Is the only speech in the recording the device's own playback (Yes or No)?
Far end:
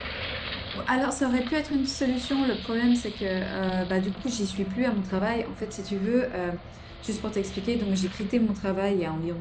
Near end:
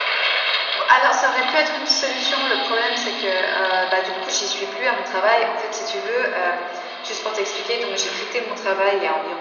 Yes